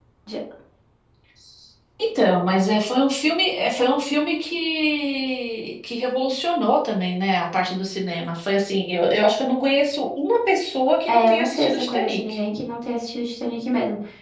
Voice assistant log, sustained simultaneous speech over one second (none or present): present